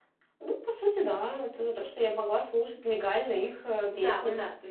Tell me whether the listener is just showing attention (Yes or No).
No